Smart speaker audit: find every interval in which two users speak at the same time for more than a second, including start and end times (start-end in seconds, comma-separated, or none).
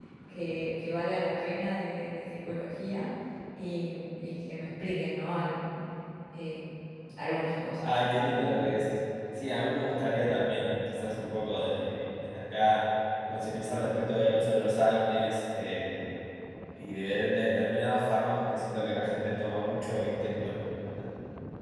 none